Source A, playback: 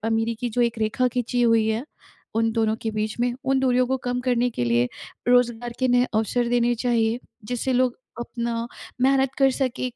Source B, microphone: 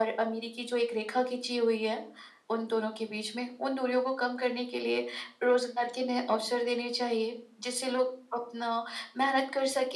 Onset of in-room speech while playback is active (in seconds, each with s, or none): none